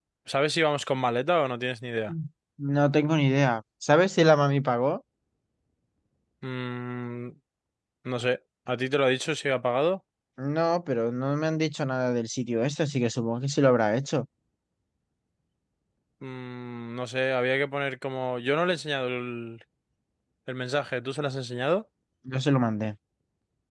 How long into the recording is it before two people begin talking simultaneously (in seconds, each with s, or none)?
none